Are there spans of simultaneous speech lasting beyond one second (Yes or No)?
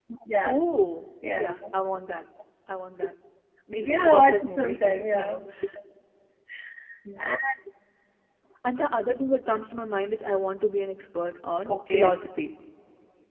Yes